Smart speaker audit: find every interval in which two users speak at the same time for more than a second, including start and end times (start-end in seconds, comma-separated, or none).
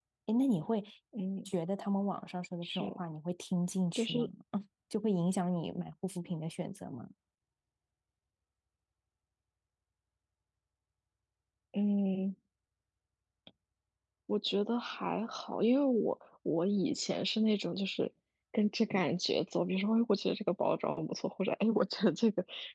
none